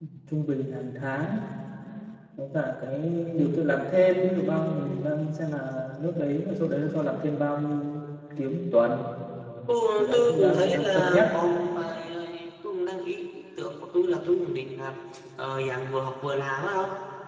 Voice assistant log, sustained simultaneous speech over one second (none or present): present